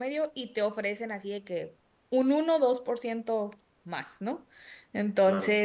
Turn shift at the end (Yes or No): No